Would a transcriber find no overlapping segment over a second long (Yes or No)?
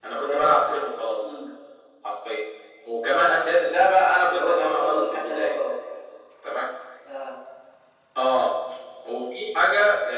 No